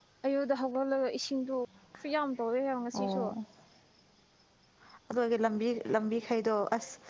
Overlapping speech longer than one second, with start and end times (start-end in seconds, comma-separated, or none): none